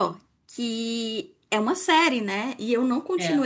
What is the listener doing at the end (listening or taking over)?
listening